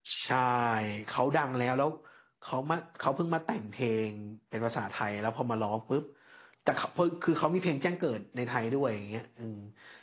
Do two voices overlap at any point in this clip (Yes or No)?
No